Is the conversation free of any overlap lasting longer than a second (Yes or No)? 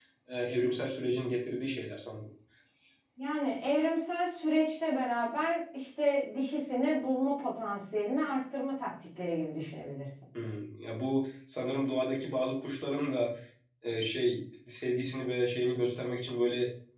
Yes